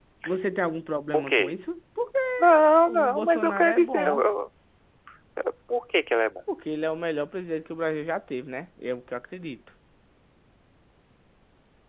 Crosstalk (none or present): present